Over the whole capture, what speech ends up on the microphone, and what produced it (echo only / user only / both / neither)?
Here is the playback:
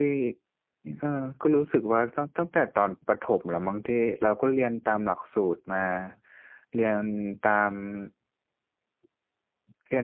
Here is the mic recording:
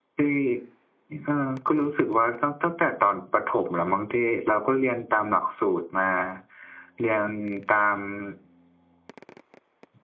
echo only